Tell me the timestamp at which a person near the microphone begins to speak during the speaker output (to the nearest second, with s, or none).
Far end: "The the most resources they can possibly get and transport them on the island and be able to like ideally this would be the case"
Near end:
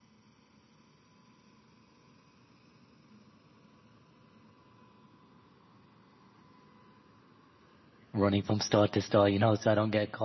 8 s